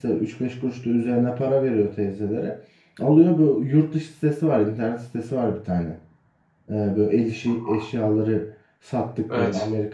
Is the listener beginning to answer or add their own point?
No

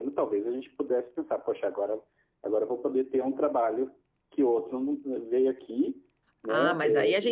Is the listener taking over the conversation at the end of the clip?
Yes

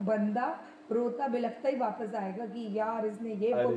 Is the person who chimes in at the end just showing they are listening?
Yes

